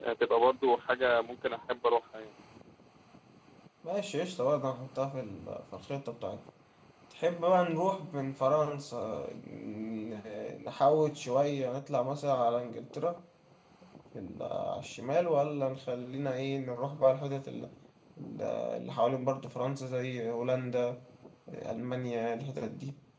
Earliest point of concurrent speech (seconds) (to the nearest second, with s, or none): none